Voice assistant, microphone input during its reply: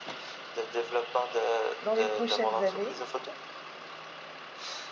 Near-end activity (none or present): present